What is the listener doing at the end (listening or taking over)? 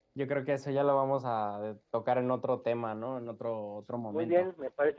taking over